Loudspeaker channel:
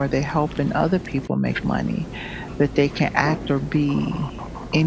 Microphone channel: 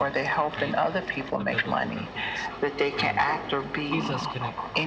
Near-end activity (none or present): present